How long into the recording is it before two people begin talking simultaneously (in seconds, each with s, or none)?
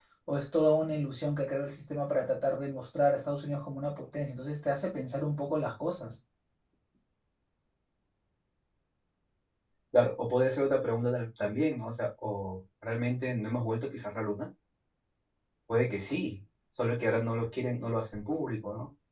none